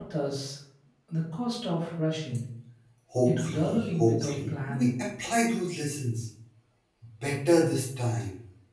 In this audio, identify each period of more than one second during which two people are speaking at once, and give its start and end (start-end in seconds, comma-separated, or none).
3.3-4.9